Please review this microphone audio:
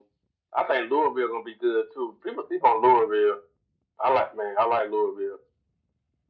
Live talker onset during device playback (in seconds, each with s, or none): none